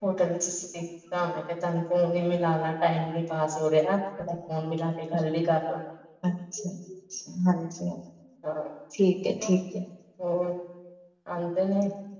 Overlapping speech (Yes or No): No